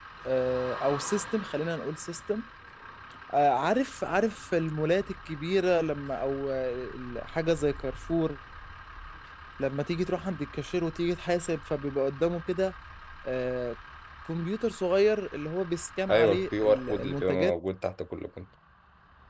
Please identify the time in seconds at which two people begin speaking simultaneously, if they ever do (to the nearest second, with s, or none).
16 s